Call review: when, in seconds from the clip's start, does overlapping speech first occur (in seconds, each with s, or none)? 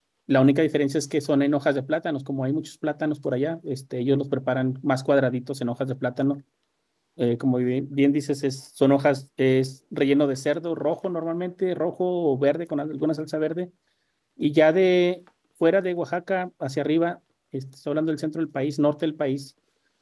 none